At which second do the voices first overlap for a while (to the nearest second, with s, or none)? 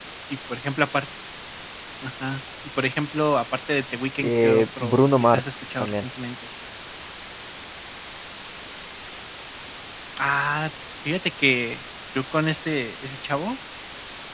4 s